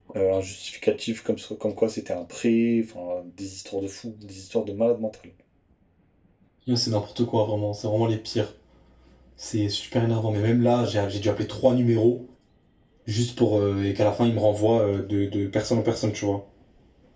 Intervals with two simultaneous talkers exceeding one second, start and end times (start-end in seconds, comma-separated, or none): none